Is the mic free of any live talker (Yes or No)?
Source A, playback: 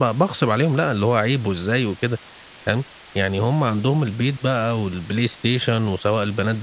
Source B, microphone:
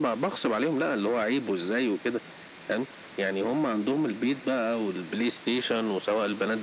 Yes